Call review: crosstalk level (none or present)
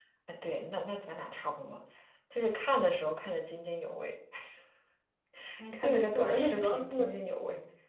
present